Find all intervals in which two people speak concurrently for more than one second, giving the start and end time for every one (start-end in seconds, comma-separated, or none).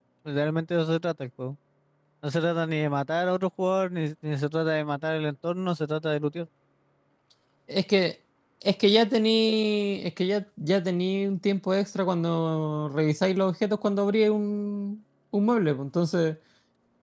none